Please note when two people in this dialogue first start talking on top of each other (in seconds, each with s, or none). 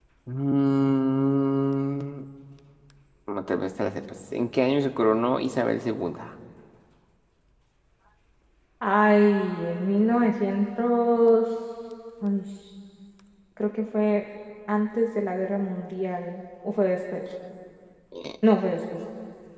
none